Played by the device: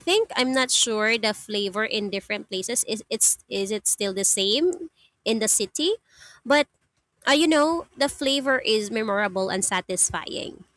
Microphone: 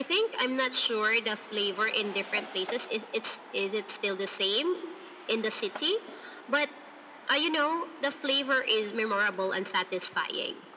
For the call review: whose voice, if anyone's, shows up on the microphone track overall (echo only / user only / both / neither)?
echo only